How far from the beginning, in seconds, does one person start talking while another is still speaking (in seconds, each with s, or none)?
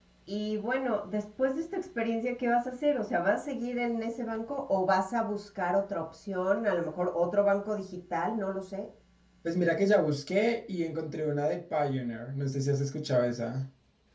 none